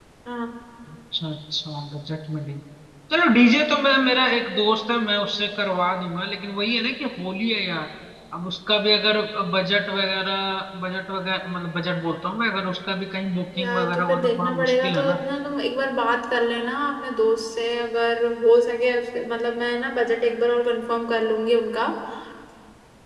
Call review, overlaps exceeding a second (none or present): present